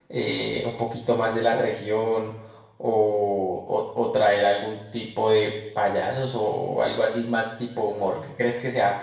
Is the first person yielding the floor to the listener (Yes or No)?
No